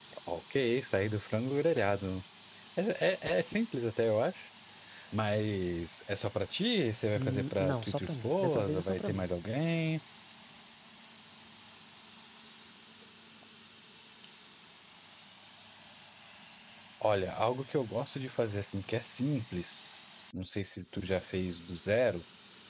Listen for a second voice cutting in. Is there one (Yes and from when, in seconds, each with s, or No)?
Yes, from 7.2 s